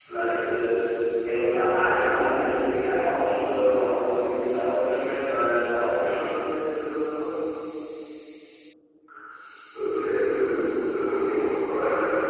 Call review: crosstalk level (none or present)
none